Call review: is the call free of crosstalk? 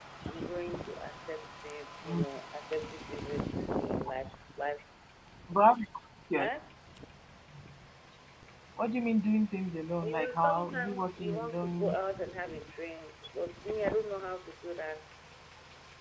No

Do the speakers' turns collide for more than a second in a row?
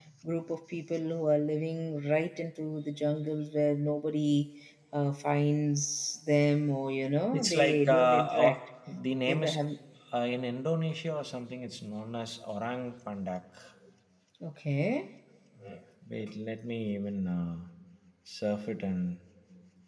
Yes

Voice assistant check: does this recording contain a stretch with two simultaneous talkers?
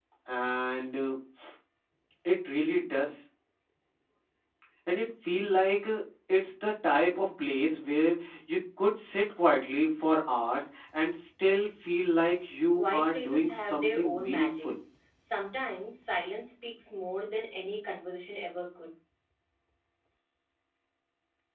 Yes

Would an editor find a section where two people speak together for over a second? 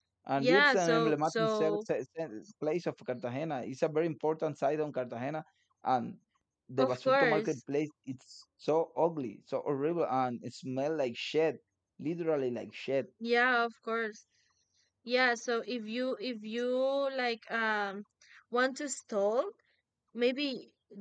Yes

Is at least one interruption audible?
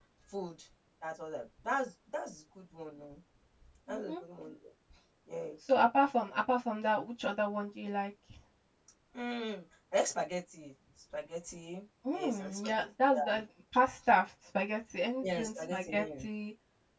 Yes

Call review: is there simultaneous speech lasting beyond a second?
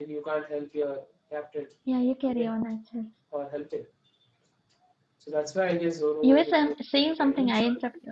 Yes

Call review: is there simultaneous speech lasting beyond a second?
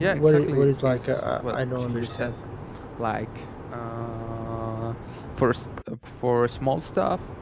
Yes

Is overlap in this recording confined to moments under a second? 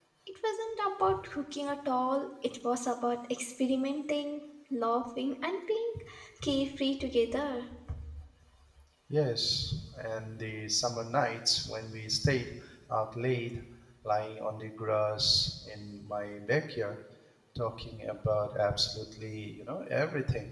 Yes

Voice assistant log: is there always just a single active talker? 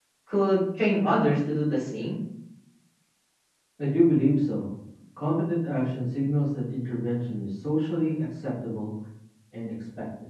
Yes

